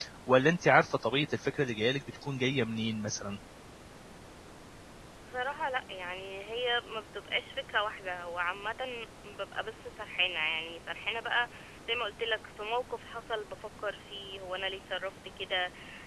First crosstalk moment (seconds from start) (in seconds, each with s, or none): none